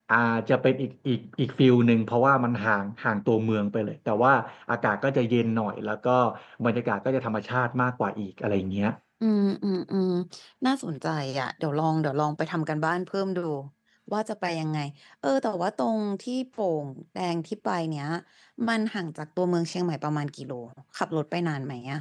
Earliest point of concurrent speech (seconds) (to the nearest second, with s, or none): none